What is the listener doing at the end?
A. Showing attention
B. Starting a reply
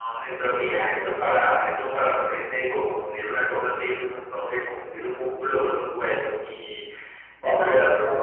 B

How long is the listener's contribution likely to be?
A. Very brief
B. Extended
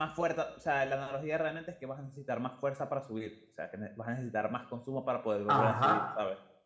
B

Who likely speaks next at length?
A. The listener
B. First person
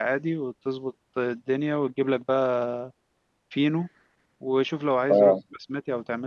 B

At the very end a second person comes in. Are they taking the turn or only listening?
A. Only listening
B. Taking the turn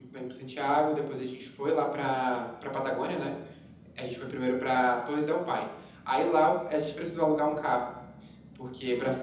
A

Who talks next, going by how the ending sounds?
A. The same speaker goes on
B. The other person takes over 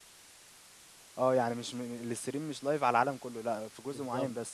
B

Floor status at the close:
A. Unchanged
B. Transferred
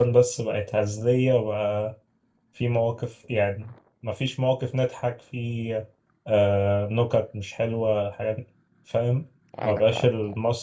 A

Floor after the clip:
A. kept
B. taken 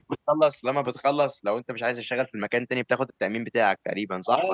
B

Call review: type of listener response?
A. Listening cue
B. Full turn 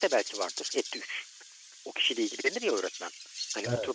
A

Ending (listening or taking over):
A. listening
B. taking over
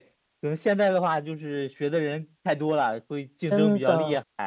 B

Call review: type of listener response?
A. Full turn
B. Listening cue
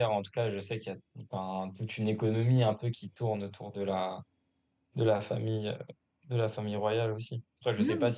B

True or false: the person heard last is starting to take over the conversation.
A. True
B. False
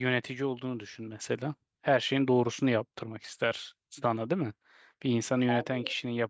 B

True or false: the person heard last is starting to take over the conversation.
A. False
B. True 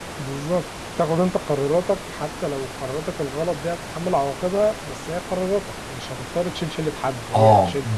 B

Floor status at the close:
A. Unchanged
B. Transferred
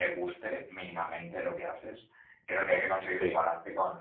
A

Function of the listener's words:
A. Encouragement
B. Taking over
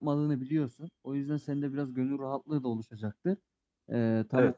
A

